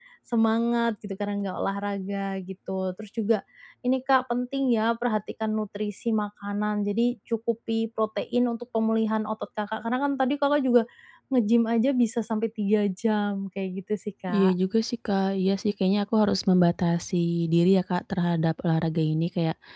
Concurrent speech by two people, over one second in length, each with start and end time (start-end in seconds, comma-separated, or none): none